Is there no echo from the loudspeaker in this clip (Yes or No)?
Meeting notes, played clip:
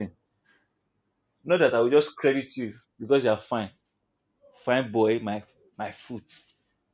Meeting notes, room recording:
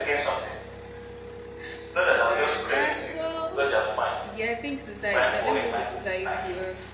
No